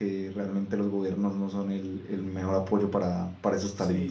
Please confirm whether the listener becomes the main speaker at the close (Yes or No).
Yes